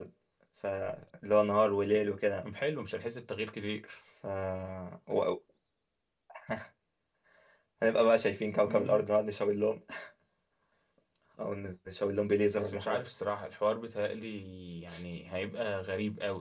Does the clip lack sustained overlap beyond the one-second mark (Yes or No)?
Yes